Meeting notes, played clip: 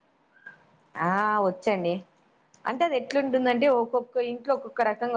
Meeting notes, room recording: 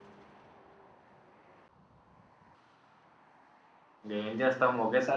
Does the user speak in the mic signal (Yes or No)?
Yes